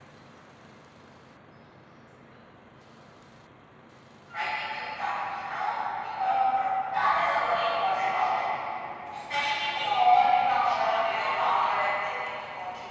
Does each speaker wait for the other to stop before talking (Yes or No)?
No